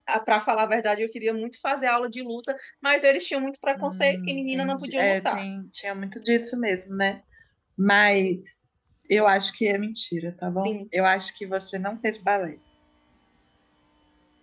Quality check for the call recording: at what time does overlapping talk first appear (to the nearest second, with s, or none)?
4 s